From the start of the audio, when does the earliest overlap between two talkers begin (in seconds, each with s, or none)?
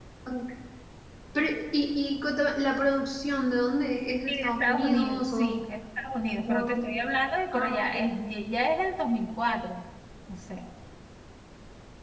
4.3 s